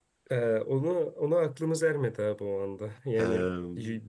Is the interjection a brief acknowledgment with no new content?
Yes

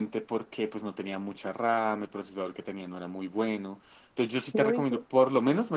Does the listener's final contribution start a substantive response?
No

